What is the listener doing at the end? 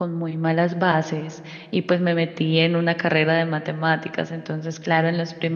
listening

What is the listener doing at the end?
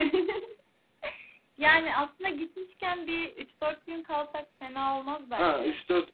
taking over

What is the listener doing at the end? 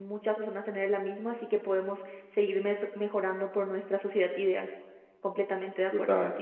taking over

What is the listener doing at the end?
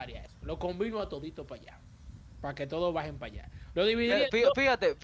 taking over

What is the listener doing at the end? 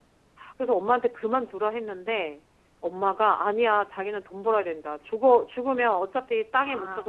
listening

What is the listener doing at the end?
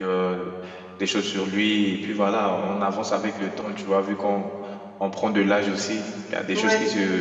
listening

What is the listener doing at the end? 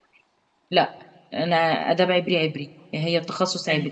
taking over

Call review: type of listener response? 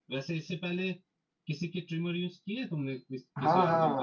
taking over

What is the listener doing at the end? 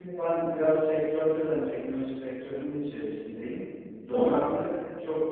listening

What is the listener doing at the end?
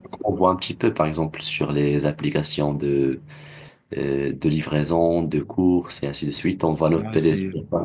taking over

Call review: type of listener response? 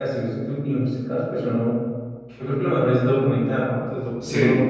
listening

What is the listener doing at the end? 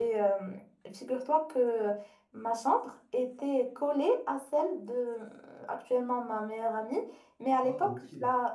listening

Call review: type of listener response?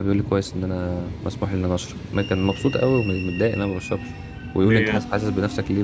listening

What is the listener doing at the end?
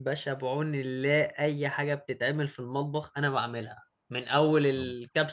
listening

